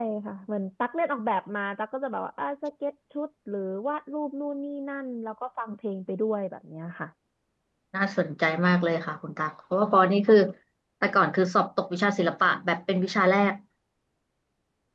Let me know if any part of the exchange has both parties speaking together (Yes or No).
No